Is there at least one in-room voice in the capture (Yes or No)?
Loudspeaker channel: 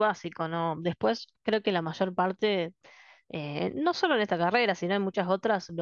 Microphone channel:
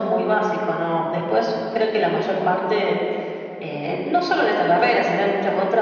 No